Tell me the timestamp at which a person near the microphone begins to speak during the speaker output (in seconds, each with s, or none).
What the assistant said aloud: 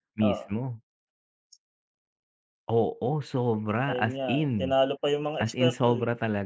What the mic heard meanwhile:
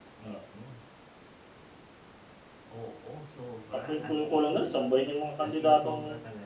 3.7 s